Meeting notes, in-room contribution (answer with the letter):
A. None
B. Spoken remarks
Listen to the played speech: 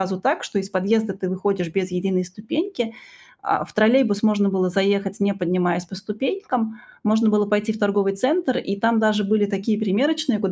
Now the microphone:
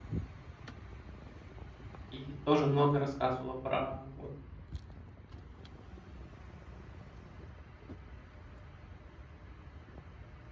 B